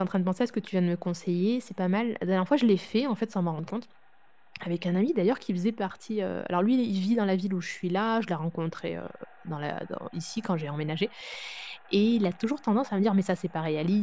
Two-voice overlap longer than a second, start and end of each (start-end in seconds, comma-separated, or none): none